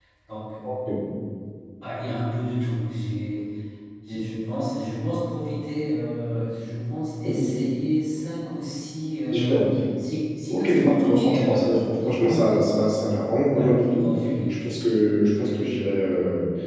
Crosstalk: present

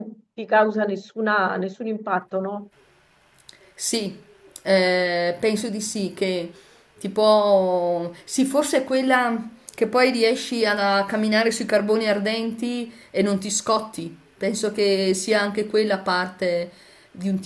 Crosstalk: none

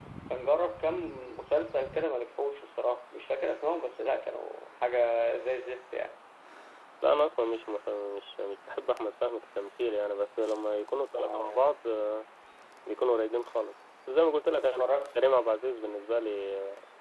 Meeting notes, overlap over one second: none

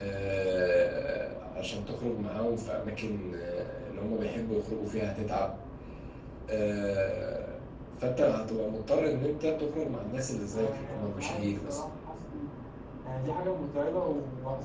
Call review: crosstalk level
present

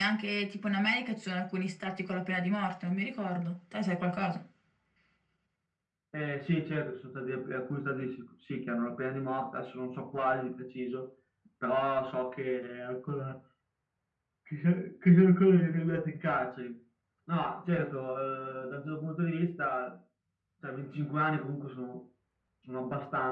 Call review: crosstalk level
none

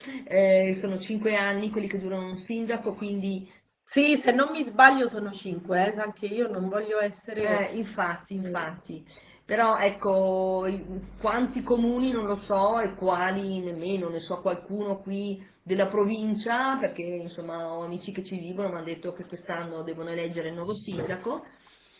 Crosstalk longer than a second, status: none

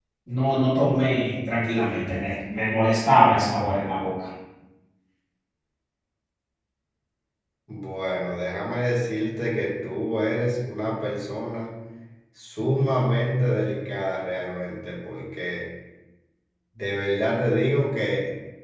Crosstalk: none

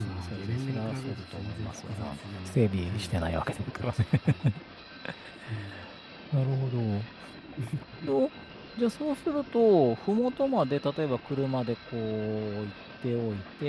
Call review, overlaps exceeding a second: present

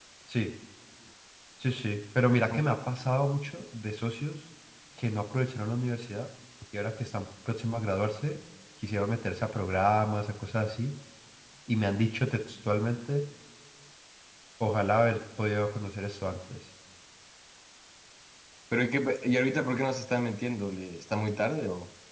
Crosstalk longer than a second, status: none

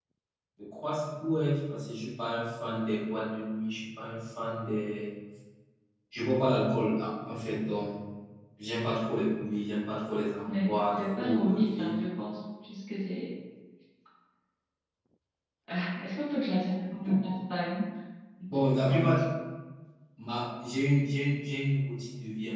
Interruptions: present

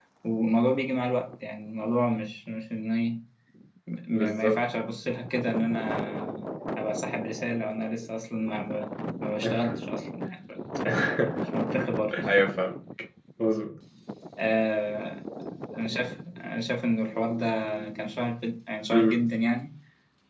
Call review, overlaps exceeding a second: none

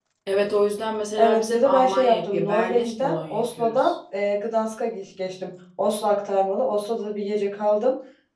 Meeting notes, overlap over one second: present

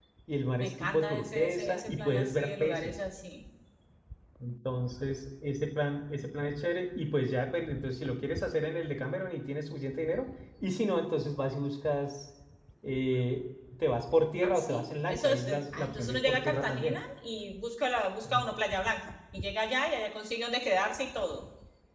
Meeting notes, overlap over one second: present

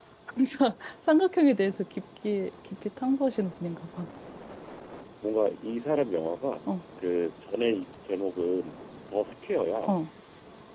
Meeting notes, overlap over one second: none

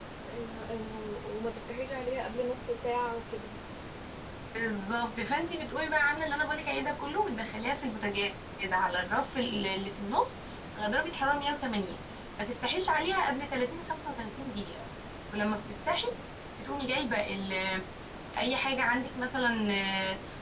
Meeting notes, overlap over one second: none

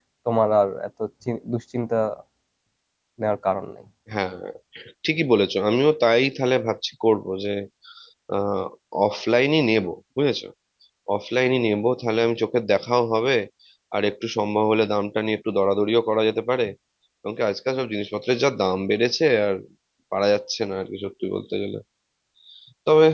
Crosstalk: none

